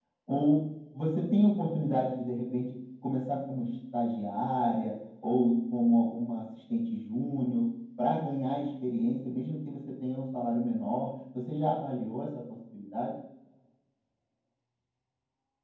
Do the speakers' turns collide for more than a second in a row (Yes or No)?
No